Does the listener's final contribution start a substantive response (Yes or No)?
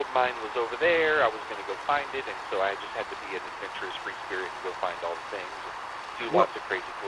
No